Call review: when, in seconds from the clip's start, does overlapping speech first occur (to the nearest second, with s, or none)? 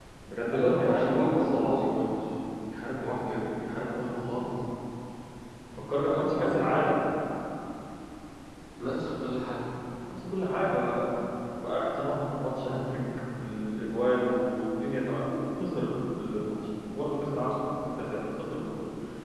1 s